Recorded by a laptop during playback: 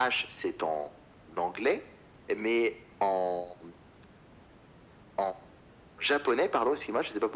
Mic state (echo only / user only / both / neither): echo only